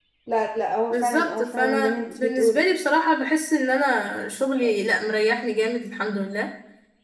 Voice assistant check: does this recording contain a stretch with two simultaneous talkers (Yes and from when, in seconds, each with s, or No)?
Yes, from 0.9 s